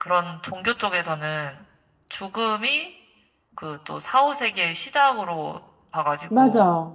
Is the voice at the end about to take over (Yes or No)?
No